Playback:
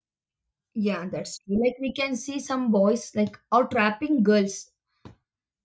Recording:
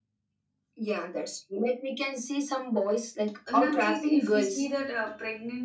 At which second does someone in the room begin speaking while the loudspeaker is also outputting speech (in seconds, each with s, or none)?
3.5 s